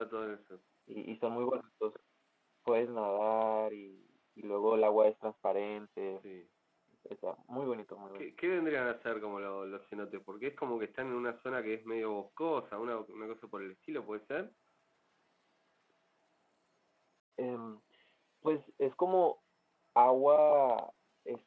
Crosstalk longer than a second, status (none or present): none